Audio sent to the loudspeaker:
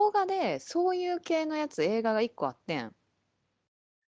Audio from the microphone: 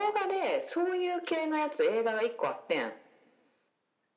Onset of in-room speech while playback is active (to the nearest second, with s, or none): none